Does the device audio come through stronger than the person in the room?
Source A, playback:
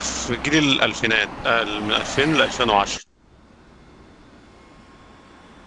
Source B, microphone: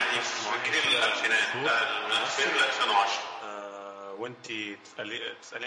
Yes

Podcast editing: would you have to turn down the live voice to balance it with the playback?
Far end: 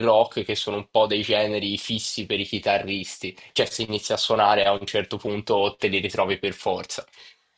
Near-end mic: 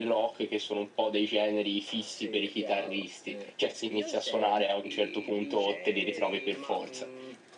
No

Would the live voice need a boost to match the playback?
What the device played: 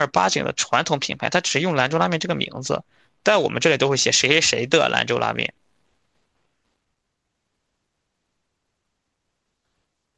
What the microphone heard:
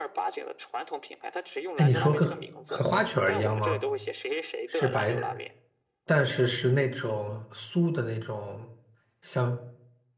No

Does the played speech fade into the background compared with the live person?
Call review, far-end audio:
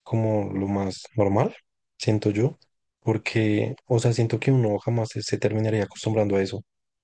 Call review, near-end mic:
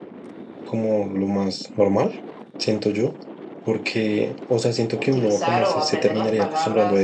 No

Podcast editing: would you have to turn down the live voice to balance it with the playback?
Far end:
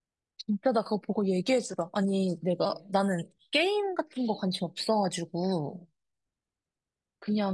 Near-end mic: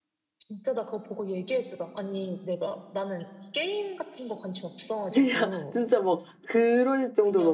Yes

